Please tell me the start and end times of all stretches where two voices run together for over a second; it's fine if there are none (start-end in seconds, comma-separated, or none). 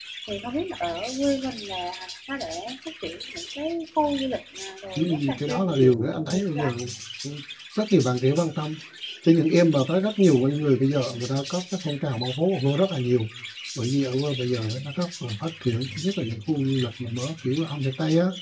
5.0-6.7